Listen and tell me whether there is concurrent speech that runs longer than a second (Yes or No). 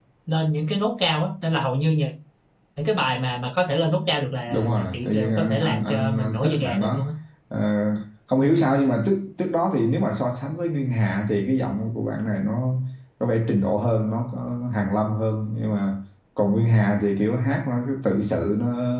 Yes